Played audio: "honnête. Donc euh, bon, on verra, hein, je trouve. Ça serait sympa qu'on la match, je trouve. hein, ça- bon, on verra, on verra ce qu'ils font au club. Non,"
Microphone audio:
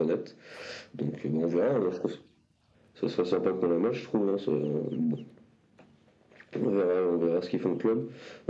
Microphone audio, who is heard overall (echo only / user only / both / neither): echo only